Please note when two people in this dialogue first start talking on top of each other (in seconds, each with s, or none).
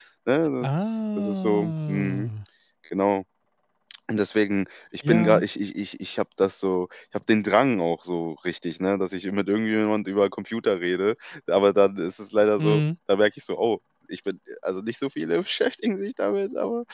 0.6 s